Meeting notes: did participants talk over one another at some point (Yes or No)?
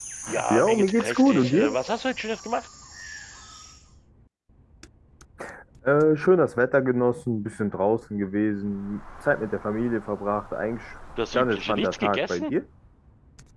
Yes